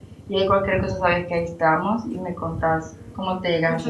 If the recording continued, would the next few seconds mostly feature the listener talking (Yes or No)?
Yes